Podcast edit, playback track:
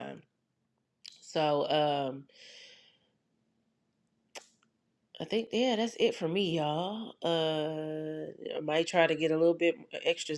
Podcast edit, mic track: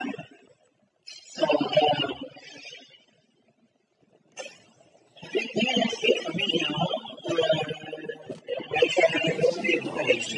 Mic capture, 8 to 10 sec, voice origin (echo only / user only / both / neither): both